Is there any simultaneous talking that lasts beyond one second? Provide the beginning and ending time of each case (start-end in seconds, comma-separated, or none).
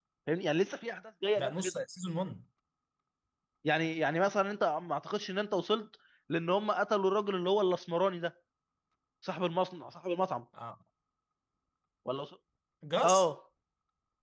none